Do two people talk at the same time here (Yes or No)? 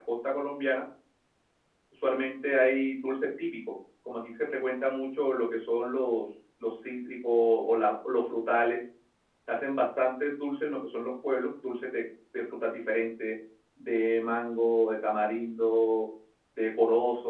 No